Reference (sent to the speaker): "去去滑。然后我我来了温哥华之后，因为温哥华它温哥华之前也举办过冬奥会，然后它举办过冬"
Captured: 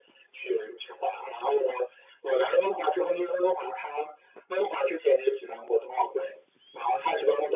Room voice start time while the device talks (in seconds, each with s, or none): none